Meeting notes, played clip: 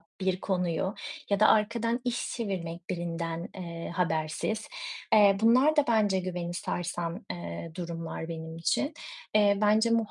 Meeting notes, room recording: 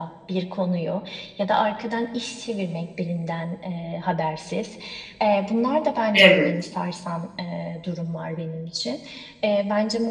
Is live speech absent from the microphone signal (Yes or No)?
No